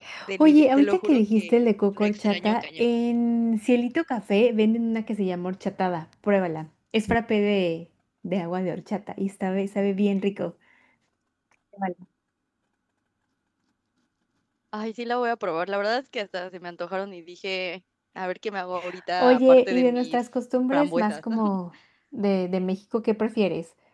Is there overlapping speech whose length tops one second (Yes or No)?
Yes